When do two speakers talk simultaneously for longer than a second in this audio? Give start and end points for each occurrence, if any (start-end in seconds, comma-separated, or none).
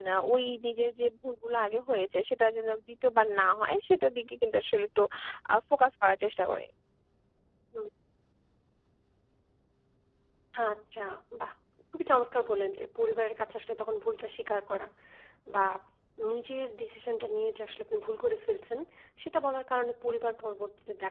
none